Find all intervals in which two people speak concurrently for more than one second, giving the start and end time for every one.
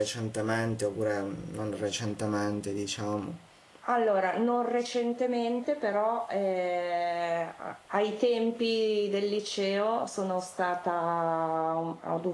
none

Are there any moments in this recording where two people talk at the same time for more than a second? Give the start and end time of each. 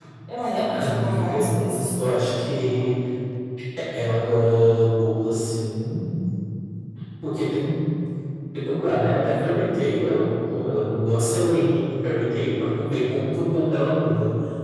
0.7-1.9

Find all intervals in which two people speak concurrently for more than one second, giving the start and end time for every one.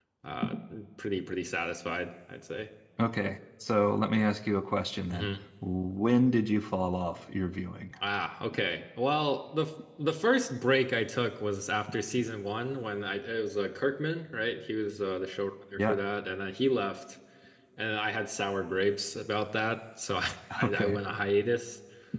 none

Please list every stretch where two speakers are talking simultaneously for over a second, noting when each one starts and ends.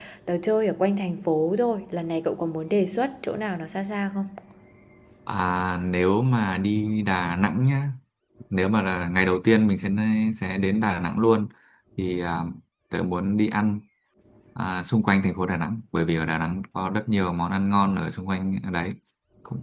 none

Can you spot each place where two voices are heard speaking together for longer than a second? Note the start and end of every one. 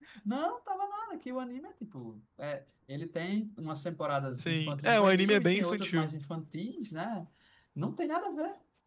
4.4-6.1

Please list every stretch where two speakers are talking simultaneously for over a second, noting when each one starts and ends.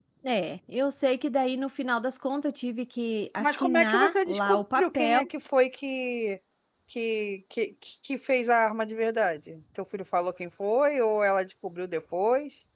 3.4-5.2

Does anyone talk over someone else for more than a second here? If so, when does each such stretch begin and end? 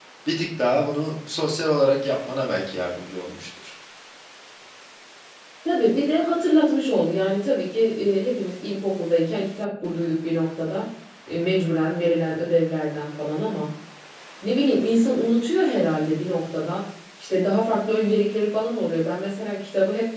none

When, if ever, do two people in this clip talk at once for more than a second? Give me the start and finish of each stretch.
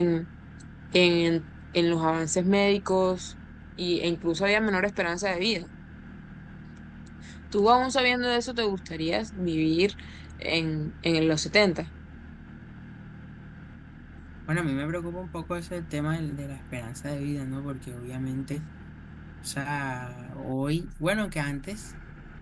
none

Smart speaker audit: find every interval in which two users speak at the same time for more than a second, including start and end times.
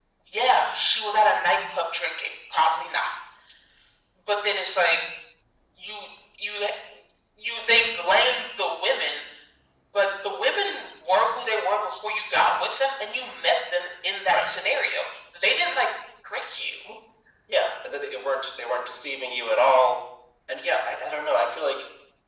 none

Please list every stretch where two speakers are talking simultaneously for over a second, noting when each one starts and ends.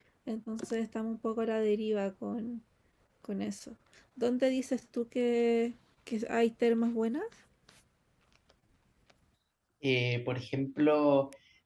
none

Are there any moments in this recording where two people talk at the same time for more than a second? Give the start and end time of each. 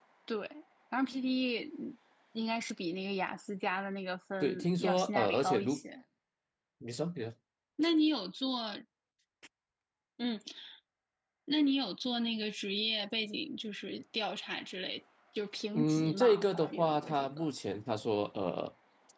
4.4-5.8, 15.7-17.5

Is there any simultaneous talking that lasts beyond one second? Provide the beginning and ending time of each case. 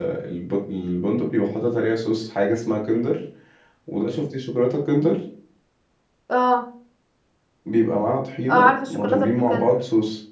8.5-9.7

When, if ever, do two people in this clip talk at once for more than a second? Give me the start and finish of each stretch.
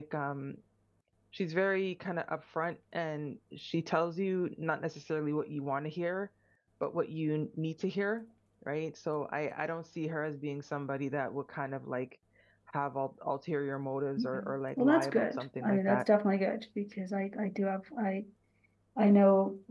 14.3-16.0

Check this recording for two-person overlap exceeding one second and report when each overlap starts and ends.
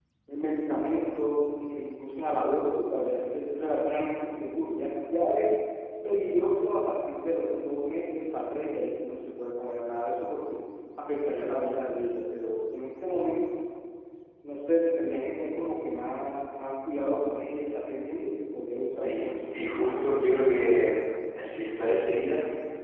18.8-20.1

